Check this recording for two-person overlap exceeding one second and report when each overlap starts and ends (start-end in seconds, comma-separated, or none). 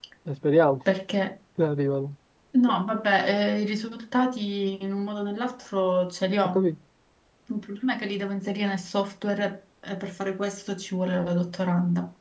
none